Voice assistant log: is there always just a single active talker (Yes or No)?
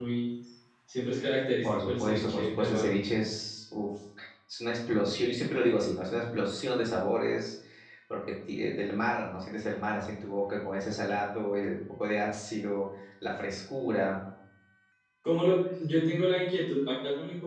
No